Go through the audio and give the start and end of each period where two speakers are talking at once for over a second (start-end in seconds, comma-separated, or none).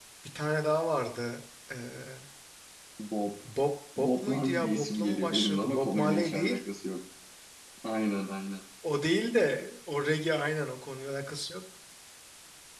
4.0-6.6